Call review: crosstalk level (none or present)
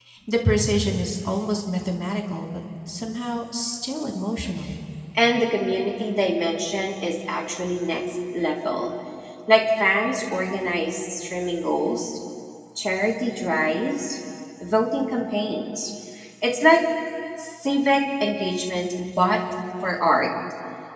none